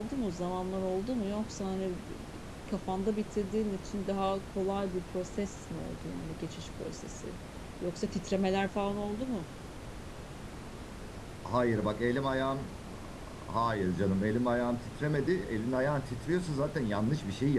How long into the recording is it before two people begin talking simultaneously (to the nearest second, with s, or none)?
none